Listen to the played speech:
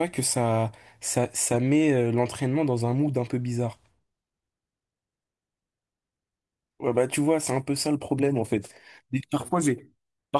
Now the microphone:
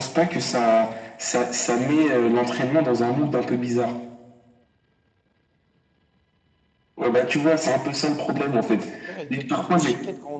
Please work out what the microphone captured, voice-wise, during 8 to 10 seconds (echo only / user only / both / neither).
both